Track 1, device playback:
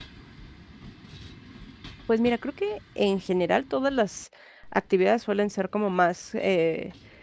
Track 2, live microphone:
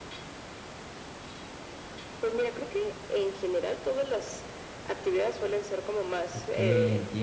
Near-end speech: present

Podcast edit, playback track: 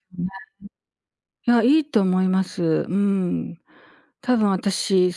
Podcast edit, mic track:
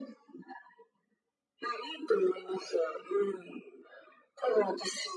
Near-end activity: none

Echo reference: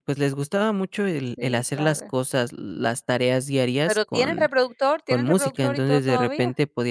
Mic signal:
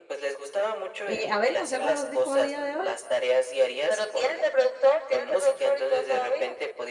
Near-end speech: present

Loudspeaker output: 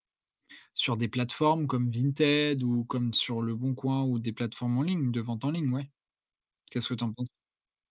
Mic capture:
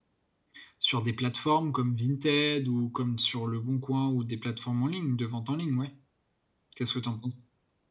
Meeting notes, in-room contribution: none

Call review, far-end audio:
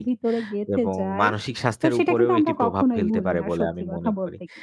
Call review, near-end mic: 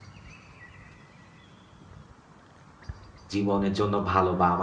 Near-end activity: present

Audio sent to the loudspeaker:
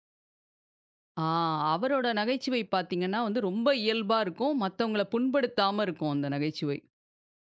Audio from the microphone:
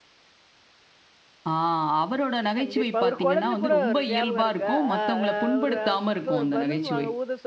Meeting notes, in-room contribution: present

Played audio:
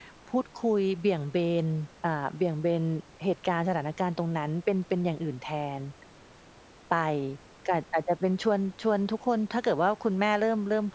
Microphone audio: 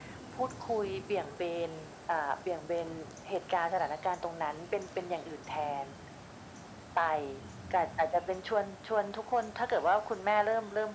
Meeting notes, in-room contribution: none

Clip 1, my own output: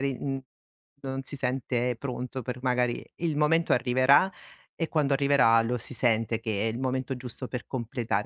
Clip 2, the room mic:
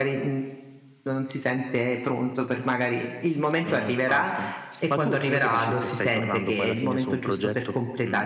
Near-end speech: present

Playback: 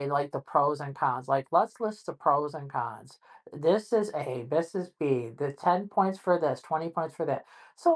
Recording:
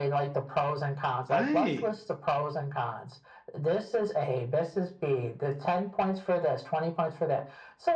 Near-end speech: present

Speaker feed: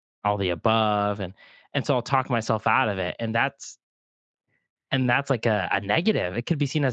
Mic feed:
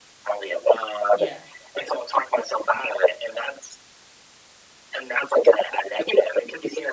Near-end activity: present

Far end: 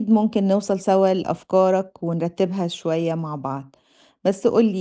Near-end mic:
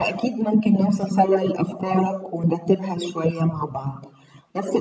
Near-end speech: none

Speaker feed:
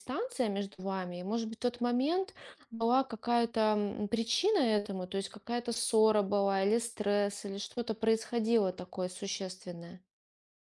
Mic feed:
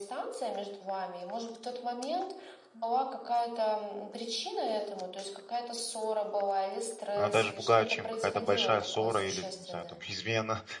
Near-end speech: present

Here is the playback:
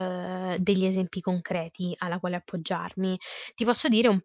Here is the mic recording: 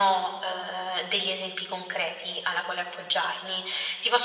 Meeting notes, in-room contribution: none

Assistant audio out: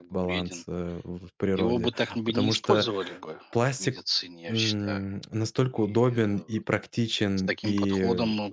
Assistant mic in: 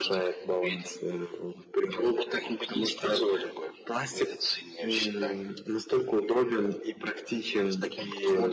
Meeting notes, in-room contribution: none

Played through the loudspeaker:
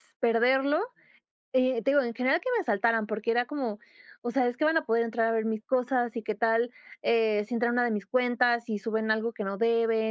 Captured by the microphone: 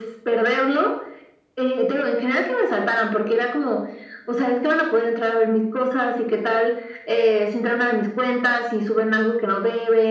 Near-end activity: none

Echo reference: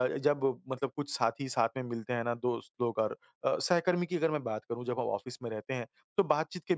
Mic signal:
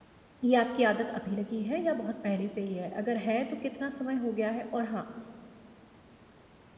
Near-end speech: present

